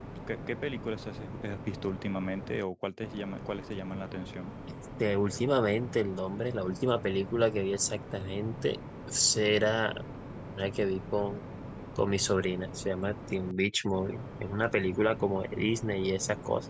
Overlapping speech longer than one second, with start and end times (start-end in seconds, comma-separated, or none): none